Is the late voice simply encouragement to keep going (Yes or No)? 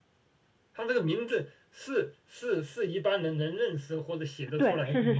No